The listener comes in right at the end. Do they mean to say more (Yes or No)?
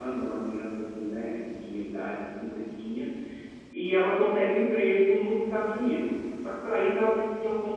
No